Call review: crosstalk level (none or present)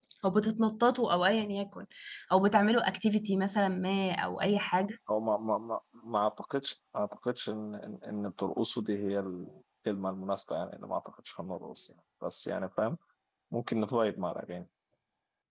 none